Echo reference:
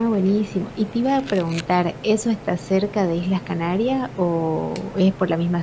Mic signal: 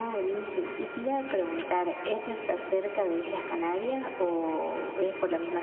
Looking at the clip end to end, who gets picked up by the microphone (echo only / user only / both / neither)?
echo only